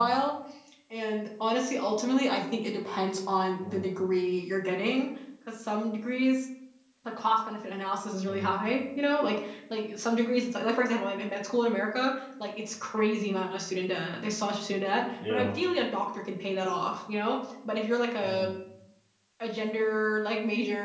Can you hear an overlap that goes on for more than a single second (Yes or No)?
No